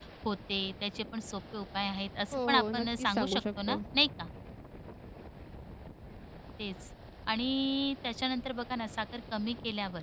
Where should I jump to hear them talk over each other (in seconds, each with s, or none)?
2.3 s